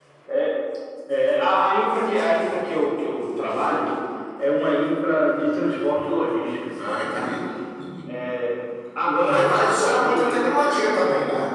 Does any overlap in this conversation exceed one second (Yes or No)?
Yes